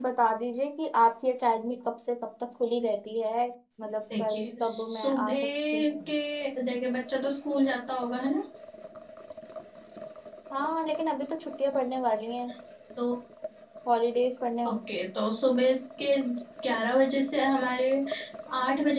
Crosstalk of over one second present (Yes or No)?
Yes